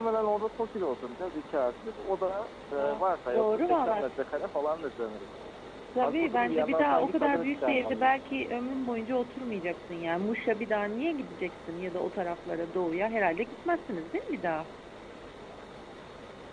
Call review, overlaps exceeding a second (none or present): present